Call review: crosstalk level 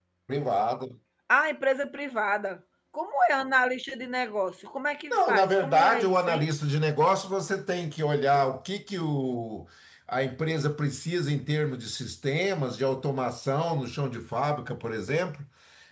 present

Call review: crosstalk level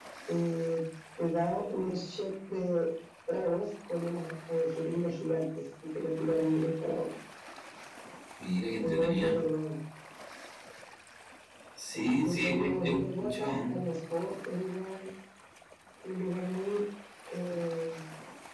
present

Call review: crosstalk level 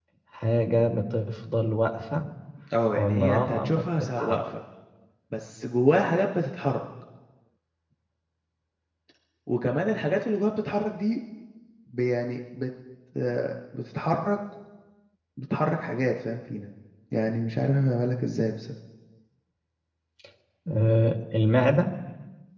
present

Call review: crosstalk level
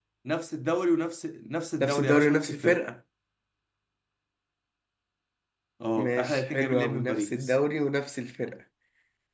present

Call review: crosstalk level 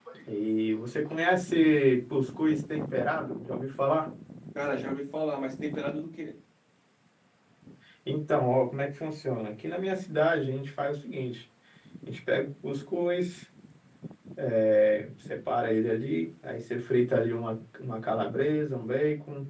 none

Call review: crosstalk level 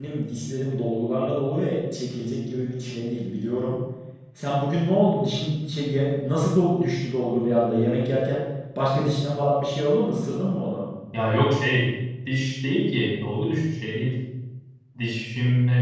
none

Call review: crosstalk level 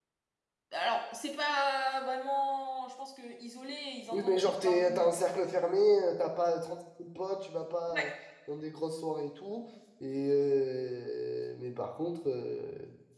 present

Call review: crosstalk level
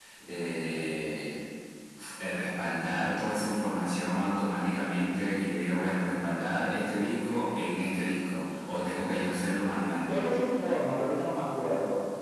none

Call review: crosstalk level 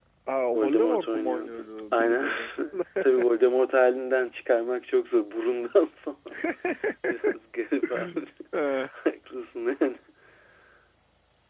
present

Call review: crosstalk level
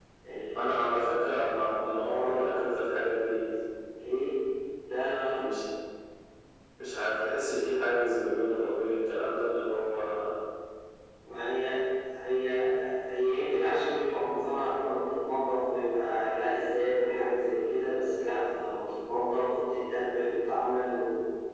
present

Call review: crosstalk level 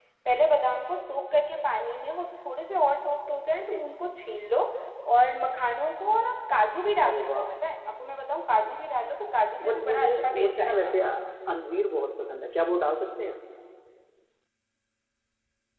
present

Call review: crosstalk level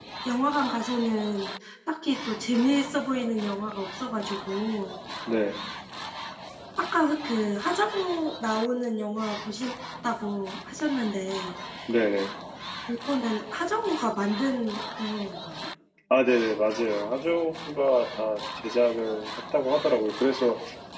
none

